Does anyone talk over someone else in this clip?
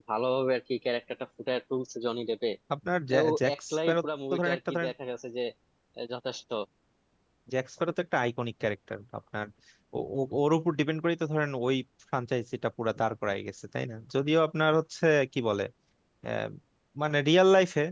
Yes, from 3.1 s

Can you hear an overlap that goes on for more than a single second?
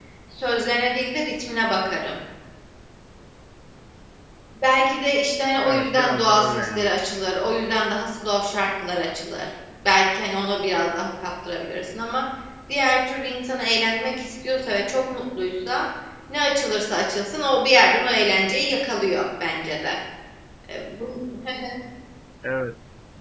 Yes, from 5.7 s

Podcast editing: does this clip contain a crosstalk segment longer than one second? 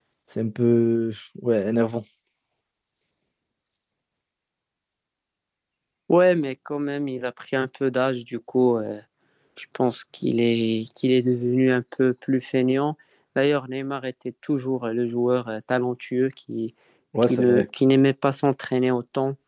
No

